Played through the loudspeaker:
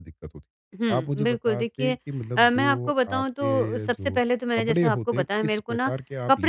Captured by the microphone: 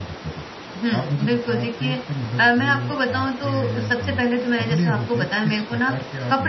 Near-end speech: none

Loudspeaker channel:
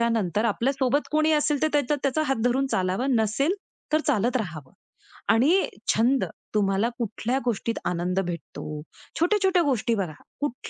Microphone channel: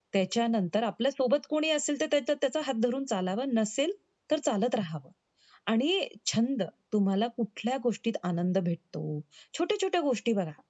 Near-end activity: none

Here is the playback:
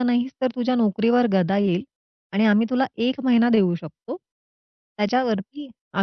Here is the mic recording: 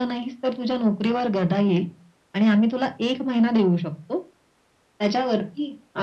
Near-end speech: none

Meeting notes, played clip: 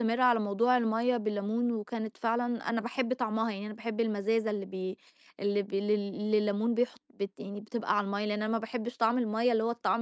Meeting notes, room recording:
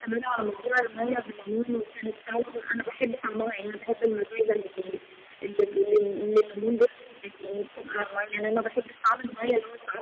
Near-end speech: none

